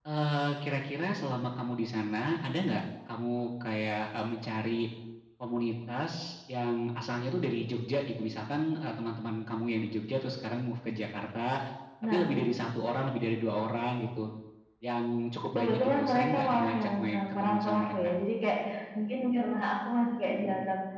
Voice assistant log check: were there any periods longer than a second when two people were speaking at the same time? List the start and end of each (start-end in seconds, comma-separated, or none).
15.6-18.1